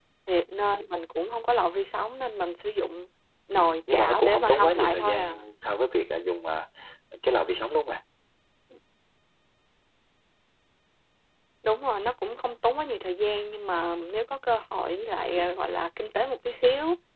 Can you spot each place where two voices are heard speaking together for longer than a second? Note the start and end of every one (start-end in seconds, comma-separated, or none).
3.5-5.4